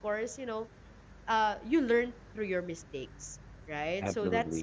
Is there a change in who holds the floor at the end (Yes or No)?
No